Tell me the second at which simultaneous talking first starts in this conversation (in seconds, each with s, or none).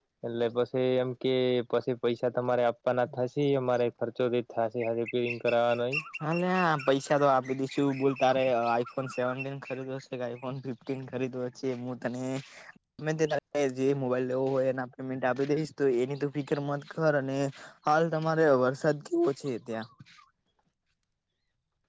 none